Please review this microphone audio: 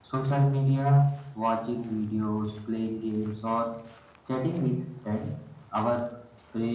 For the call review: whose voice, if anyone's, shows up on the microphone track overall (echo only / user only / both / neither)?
echo only